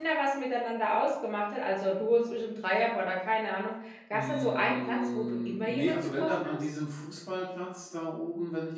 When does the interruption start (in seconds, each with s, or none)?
4.1 s